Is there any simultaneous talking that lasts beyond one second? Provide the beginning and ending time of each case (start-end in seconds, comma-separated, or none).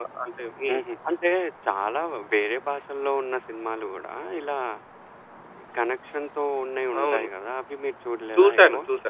none